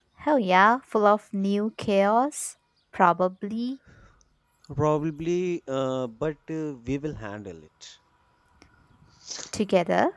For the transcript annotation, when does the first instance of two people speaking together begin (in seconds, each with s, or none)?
none